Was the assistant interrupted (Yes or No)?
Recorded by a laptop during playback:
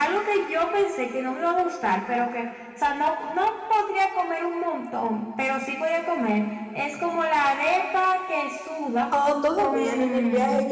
Yes